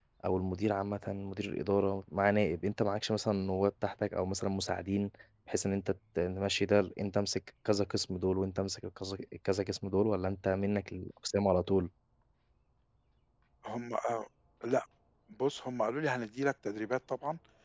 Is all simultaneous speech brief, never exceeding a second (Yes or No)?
Yes